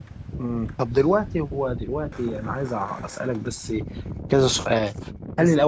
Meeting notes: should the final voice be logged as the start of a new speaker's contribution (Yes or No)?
No